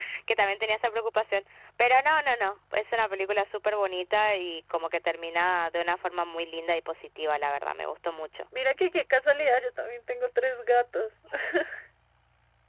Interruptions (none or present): none